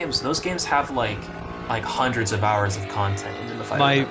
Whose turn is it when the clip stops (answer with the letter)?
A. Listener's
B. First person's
A